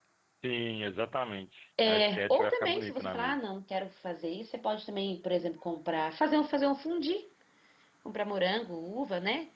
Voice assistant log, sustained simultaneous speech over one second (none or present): present